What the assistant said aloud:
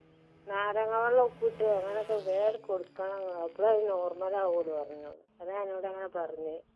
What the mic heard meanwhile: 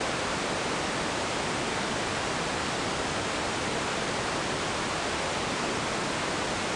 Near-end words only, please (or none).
none